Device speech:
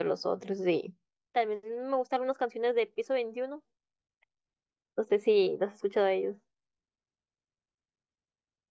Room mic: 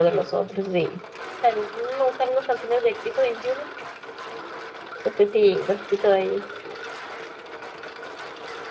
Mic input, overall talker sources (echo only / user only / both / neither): echo only